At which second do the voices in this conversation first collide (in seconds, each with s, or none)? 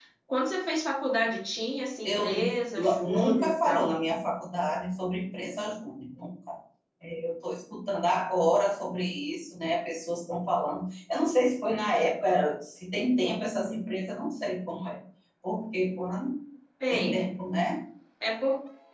2.0 s